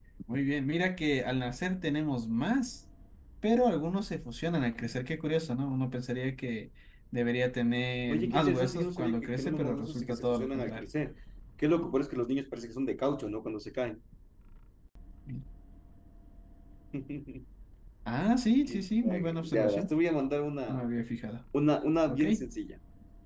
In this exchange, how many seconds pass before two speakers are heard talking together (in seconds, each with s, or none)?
8.1 s